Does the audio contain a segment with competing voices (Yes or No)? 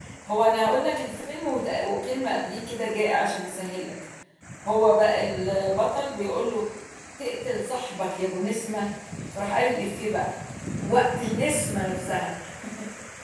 No